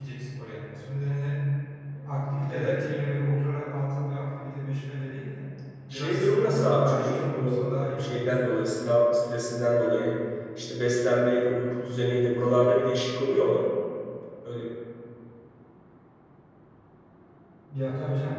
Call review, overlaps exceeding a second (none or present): present